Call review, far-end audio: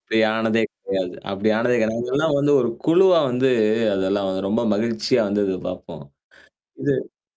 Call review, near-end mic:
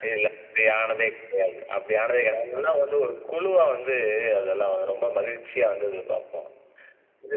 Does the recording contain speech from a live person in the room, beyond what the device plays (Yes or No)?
No